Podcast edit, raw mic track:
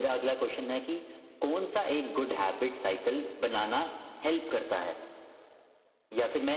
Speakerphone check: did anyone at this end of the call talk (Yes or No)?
No